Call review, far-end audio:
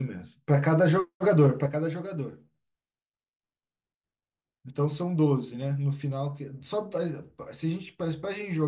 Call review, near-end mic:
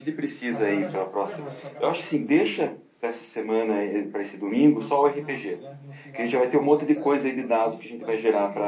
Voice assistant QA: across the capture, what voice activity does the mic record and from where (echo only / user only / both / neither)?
both